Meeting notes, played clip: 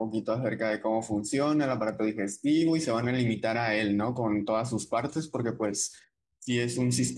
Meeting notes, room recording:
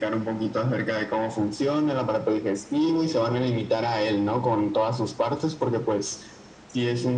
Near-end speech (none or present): none